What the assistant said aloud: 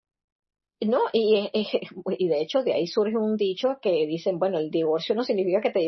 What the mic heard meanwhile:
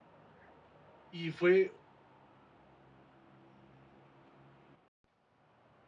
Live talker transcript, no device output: Y fue

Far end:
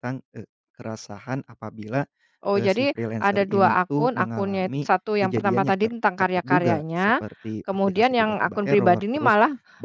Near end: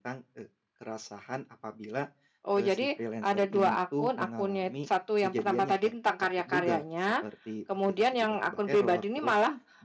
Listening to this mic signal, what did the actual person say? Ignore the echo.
none

